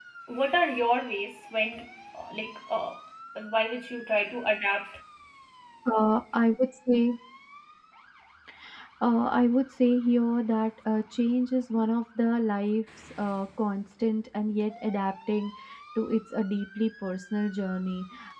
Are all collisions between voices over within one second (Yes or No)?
Yes